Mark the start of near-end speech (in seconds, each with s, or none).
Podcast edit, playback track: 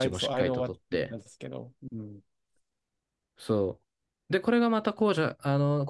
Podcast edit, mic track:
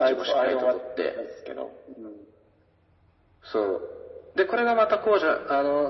none